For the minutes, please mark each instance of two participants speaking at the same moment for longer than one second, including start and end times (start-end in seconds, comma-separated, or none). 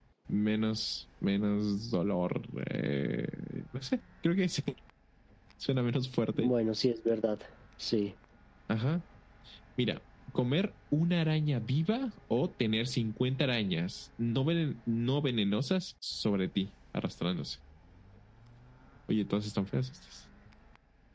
none